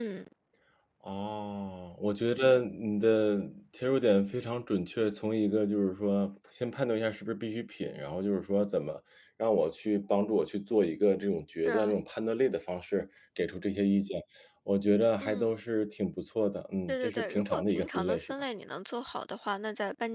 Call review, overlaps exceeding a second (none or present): present